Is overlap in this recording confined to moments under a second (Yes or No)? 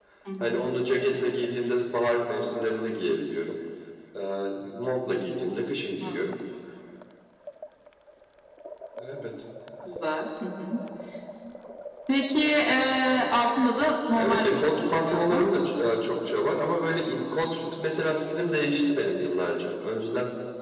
No